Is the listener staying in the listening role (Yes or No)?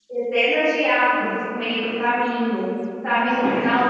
Yes